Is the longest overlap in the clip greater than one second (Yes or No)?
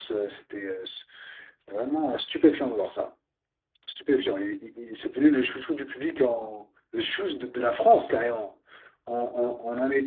No